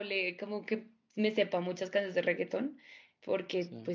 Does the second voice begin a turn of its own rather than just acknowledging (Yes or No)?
No